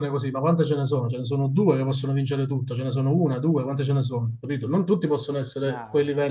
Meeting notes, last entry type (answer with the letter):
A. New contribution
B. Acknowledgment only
B